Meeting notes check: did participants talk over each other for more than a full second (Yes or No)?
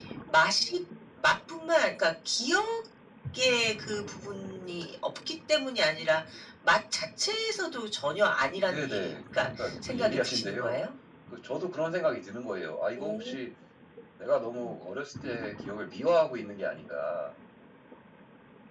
Yes